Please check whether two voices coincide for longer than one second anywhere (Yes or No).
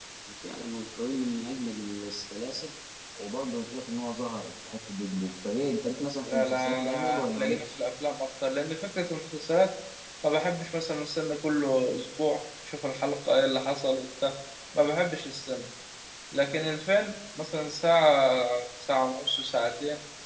Yes